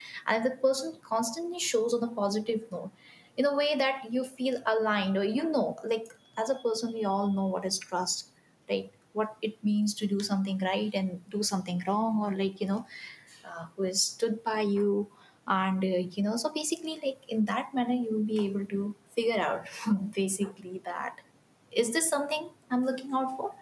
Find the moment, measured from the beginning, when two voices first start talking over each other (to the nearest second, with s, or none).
none